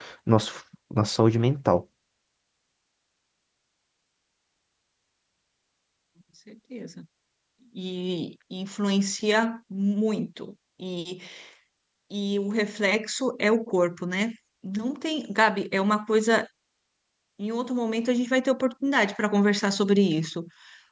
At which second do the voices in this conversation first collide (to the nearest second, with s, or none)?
none